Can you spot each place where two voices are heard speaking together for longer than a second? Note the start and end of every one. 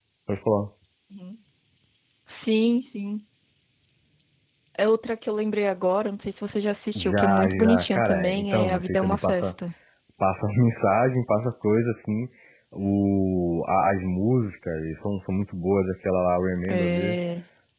7.0-9.5

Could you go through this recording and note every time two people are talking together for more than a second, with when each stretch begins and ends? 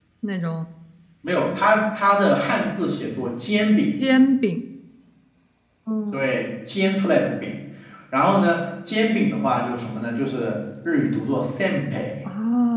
none

